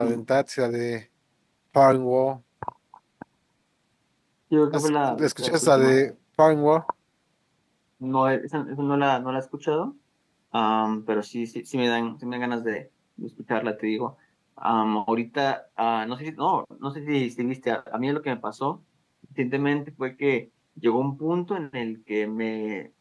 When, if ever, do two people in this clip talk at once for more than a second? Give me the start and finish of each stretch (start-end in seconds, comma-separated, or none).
4.7-6.0